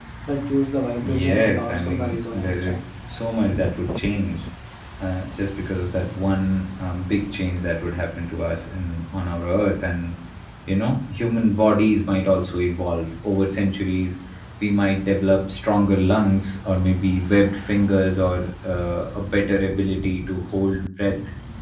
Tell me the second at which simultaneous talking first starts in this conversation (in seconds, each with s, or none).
1.0 s